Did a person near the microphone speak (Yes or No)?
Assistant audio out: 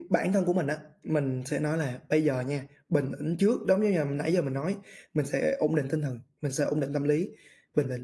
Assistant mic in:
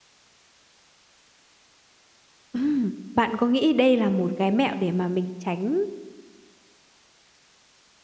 Yes